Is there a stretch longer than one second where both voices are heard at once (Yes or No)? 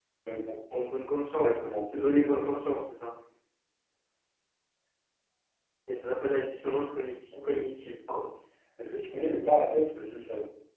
Yes